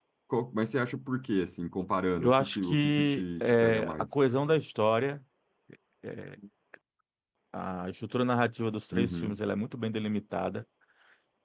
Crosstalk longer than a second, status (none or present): present